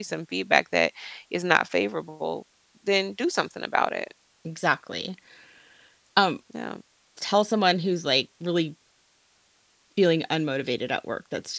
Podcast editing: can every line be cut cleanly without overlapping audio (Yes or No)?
Yes